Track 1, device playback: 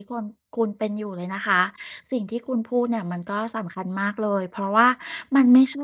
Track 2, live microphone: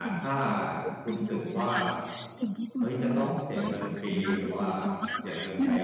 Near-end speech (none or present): present